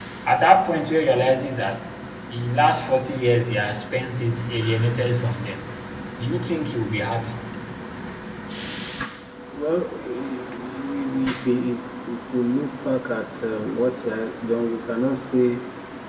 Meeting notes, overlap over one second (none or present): none